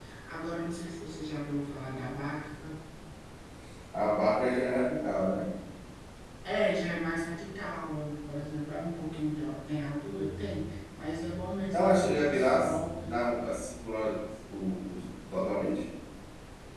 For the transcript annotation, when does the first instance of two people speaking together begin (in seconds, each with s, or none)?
11.7 s